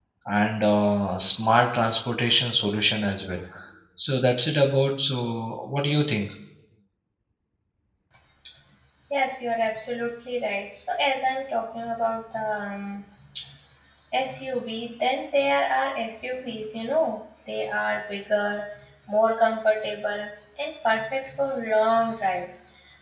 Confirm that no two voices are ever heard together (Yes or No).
Yes